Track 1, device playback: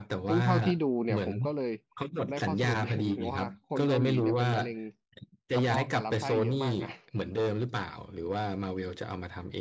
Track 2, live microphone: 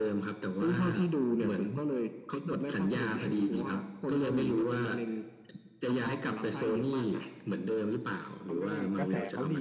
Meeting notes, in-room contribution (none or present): present